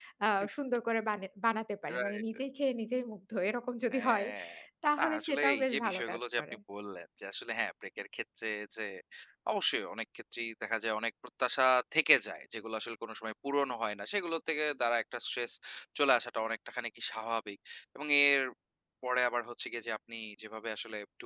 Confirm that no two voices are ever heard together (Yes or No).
No